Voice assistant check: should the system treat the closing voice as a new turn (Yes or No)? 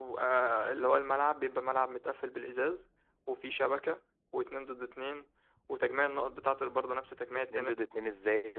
Yes